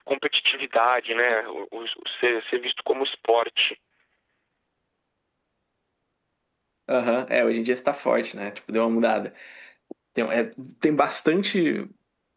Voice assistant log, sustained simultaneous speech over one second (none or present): none